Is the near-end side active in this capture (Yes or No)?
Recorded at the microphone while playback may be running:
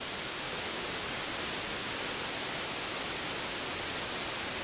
No